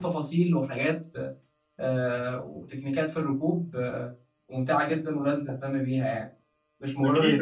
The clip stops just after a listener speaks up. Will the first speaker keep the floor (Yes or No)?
No